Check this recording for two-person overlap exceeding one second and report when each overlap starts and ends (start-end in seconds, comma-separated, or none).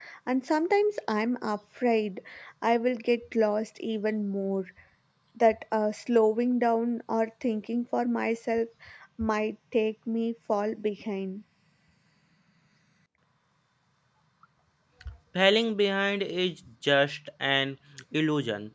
none